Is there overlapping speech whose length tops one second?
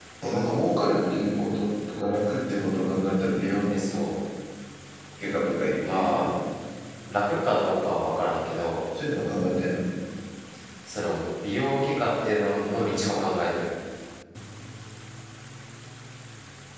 No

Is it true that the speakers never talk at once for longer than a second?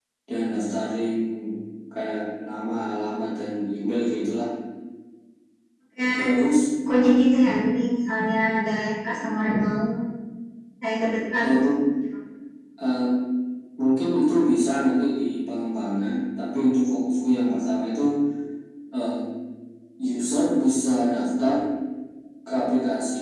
Yes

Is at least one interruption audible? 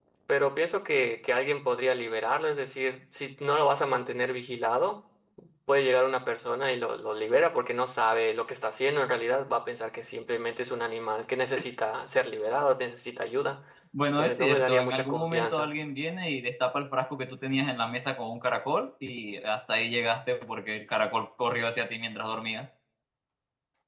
Yes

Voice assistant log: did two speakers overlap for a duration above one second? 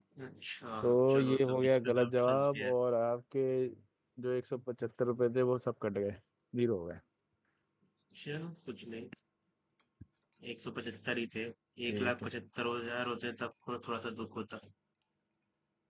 Yes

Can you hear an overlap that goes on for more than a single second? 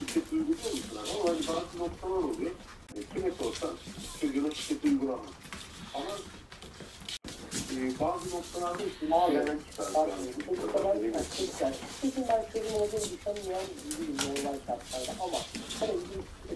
Yes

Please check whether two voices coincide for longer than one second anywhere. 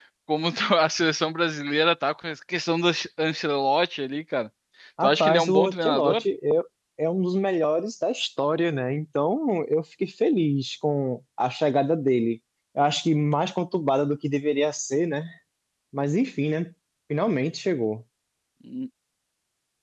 Yes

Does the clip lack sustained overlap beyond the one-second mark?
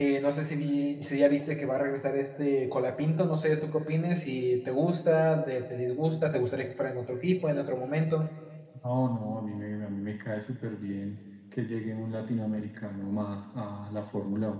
Yes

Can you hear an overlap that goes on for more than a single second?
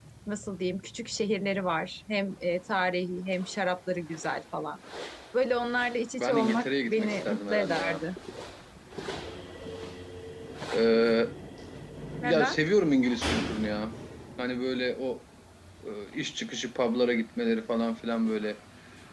Yes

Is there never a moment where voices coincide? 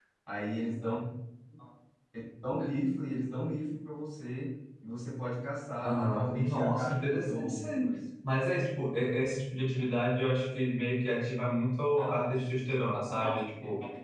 No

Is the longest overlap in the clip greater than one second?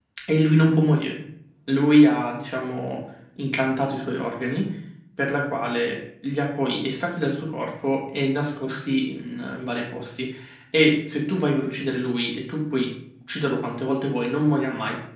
No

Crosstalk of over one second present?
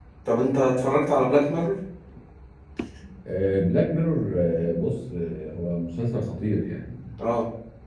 No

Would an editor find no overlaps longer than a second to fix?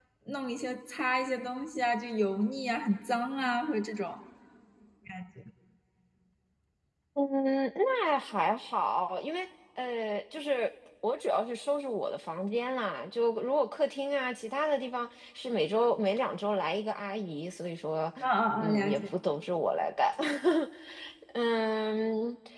Yes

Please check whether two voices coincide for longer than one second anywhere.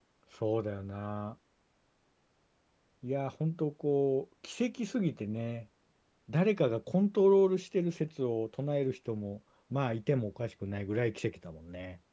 No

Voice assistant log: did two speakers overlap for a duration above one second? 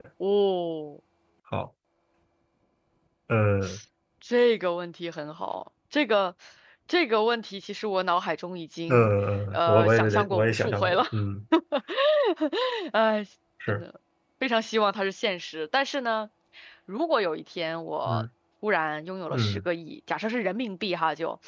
Yes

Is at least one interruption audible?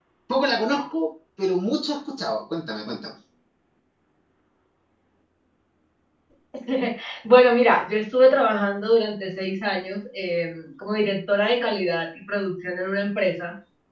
No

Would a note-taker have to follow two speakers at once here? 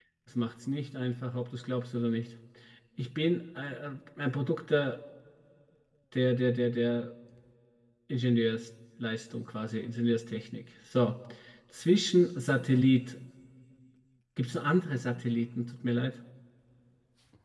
No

